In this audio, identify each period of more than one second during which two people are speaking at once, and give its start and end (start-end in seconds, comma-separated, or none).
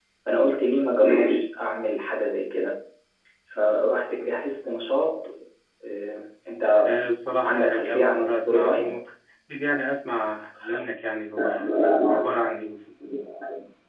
7.4-9.0